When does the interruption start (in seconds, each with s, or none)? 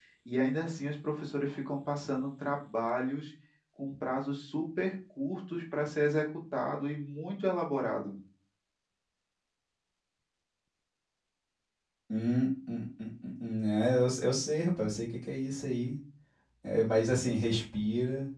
none